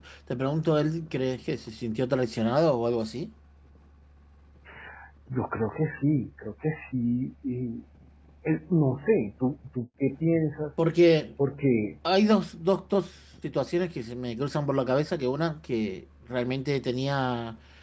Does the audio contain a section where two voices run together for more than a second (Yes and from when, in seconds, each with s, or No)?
No